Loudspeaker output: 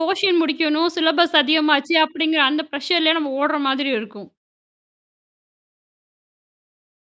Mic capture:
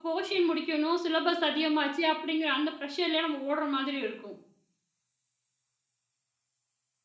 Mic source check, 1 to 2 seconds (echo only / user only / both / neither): echo only